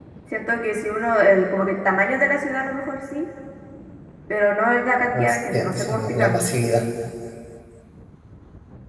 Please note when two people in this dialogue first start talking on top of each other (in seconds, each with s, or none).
5.1 s